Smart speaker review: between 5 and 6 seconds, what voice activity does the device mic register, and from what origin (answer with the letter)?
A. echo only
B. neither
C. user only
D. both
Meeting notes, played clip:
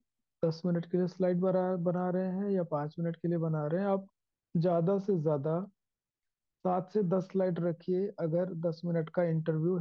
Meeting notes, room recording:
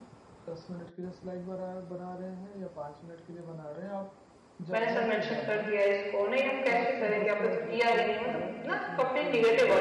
D